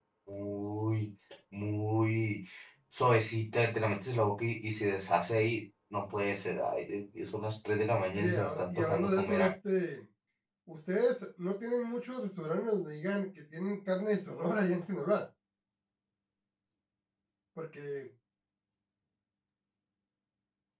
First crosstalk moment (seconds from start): 8.2 s

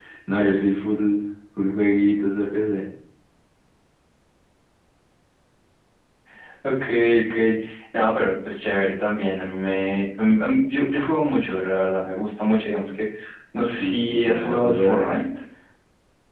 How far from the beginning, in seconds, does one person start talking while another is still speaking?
13.7 s

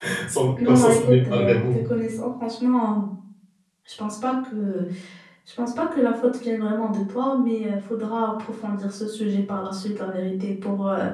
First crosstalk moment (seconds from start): 0.6 s

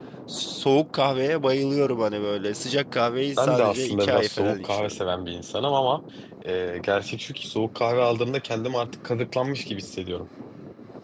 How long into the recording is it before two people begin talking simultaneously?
3.4 s

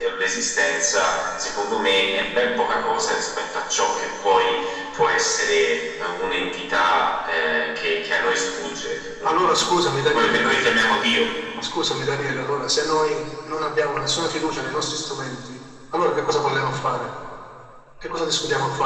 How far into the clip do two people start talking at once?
9.2 s

